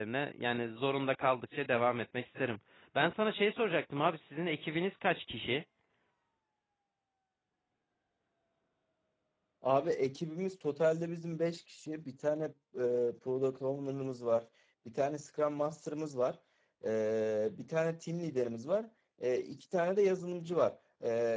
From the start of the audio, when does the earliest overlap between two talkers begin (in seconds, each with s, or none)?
none